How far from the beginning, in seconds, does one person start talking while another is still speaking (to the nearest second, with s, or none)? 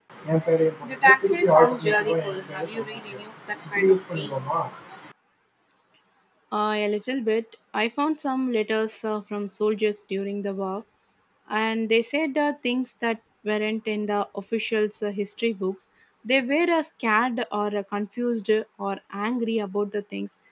none